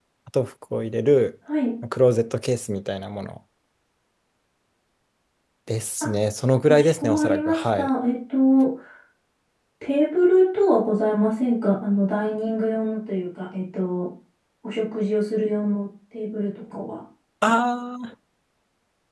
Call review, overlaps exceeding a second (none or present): present